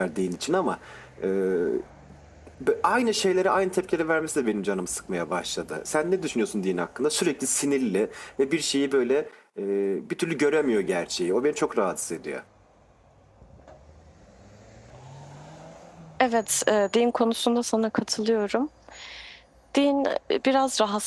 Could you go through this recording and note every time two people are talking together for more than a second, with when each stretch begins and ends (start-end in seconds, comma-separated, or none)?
none